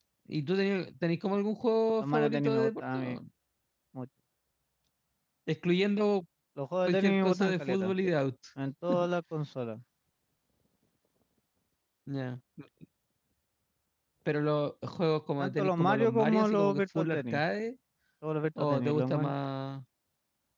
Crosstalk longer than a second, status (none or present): present